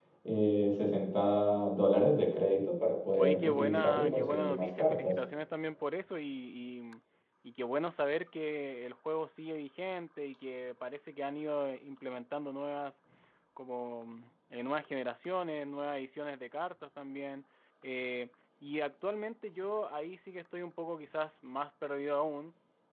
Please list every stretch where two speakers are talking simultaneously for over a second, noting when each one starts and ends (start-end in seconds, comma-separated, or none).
3.2-5.1